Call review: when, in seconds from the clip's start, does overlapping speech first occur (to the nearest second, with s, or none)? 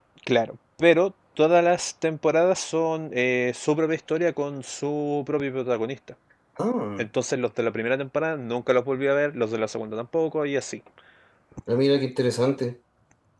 none